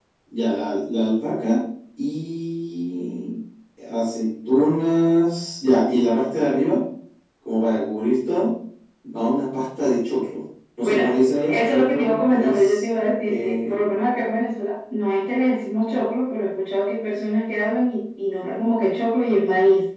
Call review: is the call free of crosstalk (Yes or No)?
No